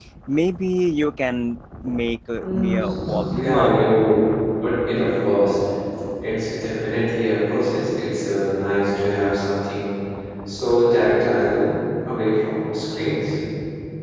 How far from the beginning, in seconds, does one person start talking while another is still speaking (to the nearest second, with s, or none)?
2 s